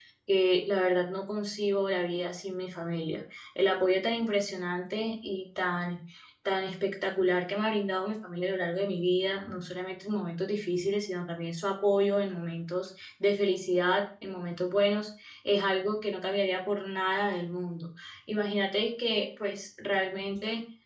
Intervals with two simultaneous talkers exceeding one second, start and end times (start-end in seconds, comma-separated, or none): none